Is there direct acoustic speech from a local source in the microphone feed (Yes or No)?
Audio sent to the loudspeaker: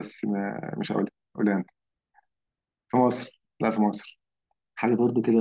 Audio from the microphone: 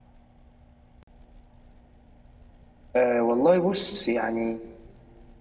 Yes